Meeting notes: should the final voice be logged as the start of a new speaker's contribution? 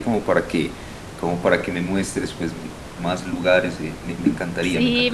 Yes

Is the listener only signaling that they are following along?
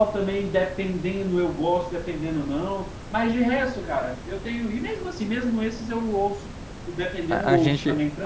No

